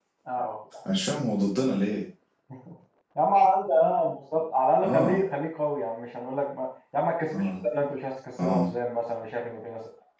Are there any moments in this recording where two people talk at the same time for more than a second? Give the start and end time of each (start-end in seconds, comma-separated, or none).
none